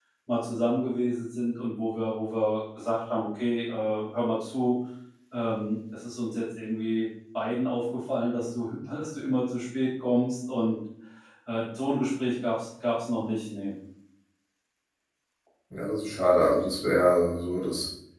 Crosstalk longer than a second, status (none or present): none